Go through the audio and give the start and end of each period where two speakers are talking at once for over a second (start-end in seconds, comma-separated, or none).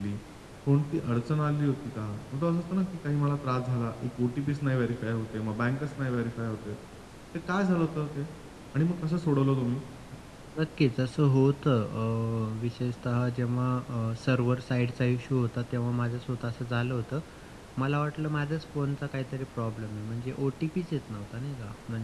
none